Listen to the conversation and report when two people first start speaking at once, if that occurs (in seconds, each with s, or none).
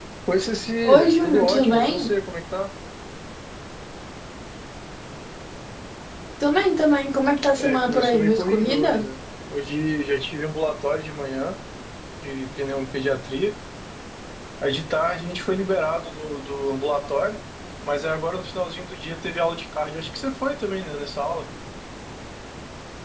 0.8 s